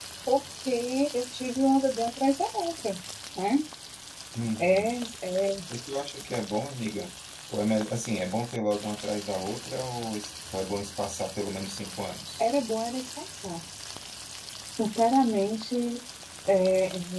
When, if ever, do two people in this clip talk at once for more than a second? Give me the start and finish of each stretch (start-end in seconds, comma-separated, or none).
none